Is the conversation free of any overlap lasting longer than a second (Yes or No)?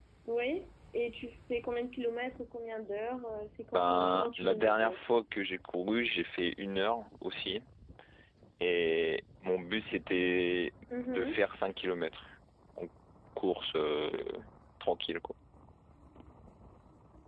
No